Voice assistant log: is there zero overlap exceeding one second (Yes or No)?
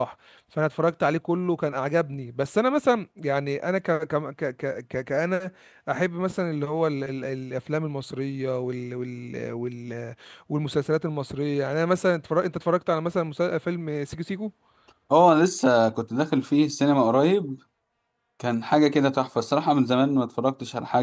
Yes